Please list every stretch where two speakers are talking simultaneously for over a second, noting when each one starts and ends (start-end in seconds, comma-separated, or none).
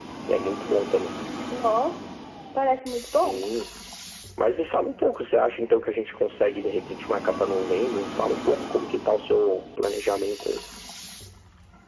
none